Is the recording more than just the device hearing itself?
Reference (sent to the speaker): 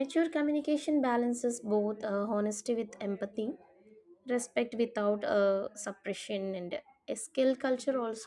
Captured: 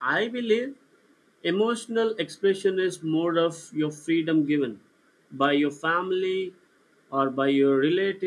Yes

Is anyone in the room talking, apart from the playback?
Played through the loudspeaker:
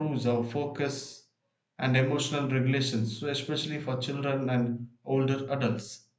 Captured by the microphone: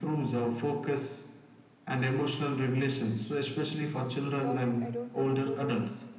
Yes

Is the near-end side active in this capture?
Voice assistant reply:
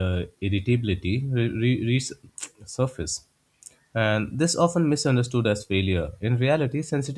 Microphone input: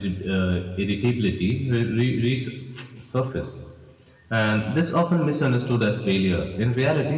No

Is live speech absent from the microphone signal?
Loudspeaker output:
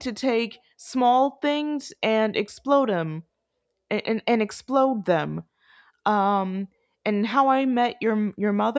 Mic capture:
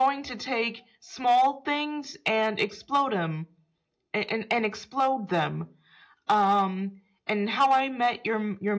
Yes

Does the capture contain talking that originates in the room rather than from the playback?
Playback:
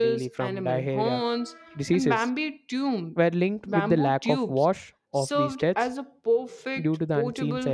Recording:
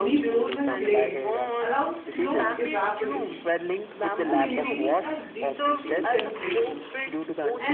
Yes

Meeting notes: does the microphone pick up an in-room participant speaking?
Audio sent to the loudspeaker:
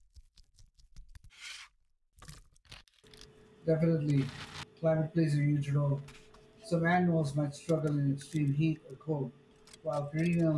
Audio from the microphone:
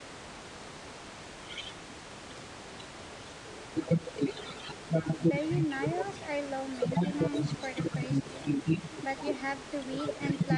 Yes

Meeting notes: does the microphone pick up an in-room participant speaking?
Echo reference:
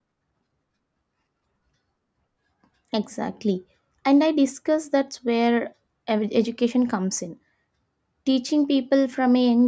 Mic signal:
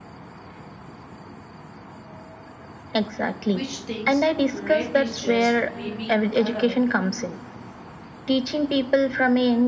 Yes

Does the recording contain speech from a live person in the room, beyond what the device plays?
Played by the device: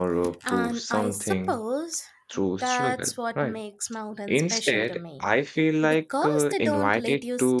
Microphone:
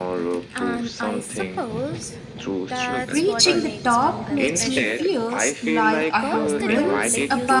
Yes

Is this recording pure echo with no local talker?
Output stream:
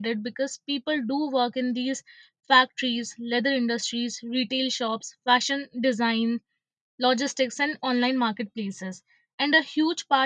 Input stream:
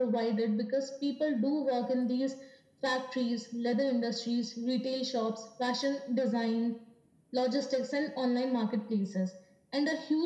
Yes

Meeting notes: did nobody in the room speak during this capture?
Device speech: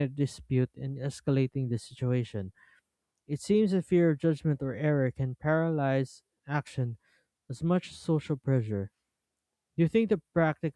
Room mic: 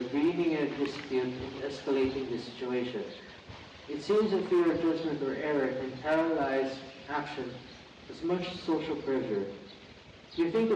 Yes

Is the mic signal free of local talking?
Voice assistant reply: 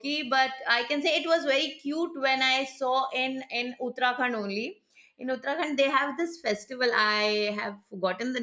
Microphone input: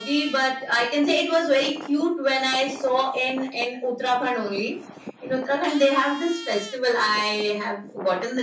Yes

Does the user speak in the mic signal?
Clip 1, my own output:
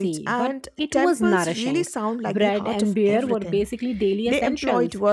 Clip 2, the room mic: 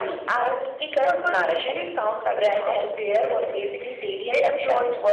No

